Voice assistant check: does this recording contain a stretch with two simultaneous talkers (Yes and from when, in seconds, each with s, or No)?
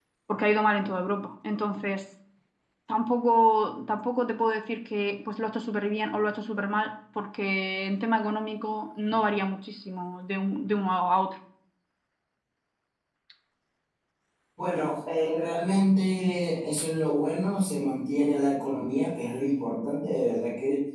No